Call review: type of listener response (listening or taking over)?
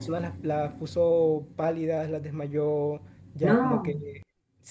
listening